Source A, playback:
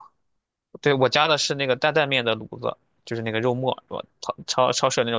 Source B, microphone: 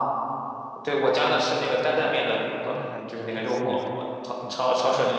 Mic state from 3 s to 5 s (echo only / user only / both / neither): both